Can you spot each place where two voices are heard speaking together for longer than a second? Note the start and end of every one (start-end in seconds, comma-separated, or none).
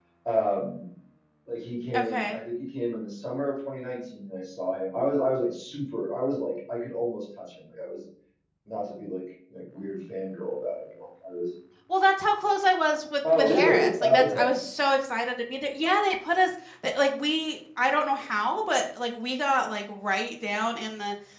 13.3-14.6